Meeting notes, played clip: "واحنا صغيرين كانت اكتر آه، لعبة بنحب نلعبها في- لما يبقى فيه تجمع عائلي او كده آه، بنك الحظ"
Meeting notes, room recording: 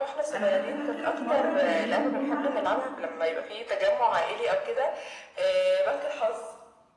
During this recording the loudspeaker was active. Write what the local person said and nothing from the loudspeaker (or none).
انا حتى فاكرة في مرة كان يوم جمعة